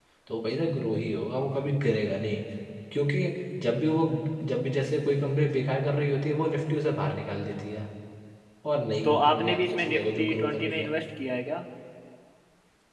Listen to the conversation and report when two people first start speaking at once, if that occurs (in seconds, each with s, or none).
9.0 s